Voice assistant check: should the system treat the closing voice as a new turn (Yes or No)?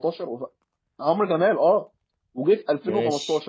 No